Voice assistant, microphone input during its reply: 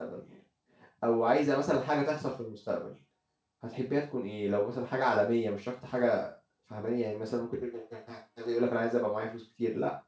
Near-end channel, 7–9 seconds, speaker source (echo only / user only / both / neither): user only